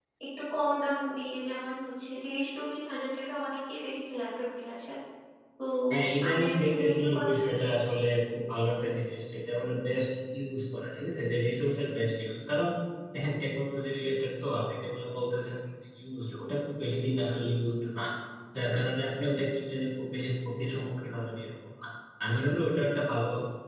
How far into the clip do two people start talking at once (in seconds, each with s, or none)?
6.3 s